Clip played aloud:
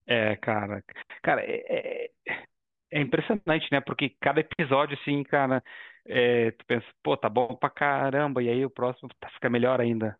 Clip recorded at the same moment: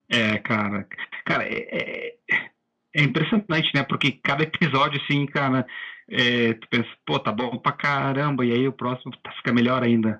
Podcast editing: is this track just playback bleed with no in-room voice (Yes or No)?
Yes